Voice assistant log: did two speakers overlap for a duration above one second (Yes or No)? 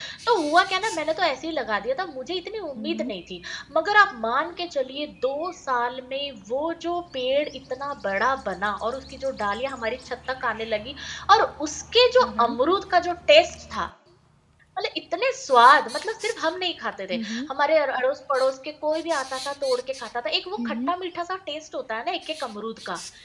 No